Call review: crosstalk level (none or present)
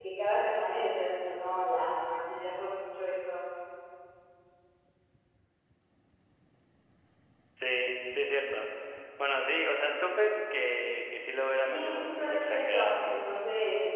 present